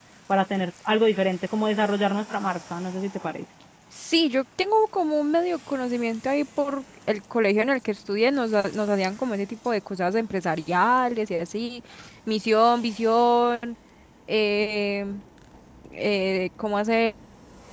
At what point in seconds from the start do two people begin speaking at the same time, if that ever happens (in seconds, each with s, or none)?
none